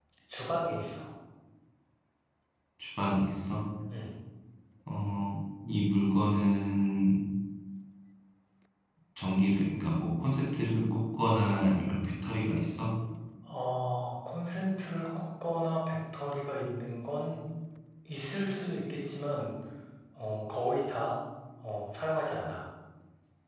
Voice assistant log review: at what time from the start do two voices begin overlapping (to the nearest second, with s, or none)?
none